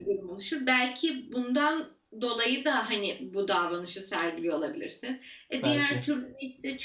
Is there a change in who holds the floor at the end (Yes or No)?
No